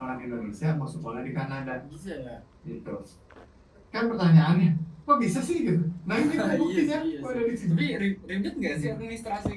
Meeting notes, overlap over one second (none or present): present